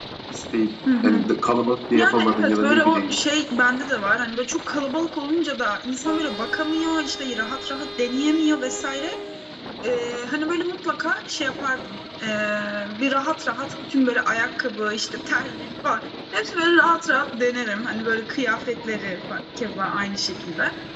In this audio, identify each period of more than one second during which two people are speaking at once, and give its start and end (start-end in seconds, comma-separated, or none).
1.9-3.2